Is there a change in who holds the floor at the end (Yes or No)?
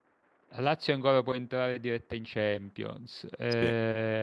No